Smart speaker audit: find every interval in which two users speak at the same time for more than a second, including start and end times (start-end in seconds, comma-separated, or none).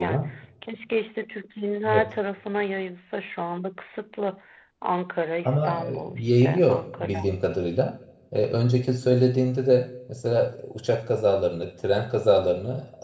5.4-7.3